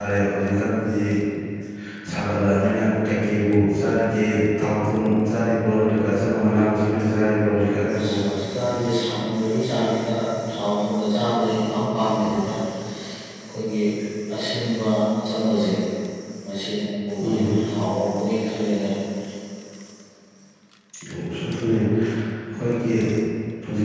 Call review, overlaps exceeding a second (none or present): none